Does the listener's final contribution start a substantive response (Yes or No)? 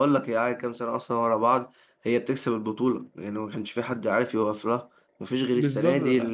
No